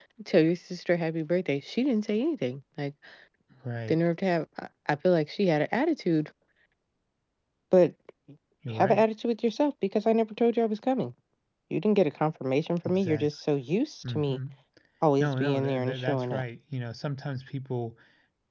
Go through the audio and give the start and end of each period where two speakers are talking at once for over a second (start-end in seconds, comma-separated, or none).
15.2-16.4